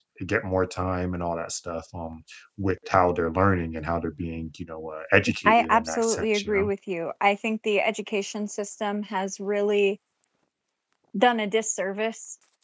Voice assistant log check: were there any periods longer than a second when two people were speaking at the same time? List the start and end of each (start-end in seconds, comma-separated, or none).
5.5-6.7